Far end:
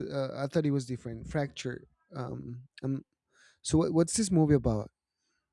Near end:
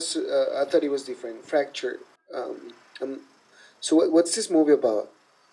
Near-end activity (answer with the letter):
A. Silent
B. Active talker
A